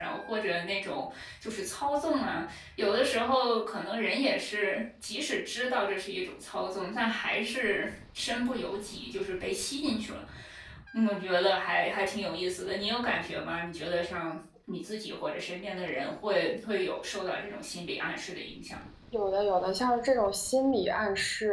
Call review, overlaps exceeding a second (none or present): none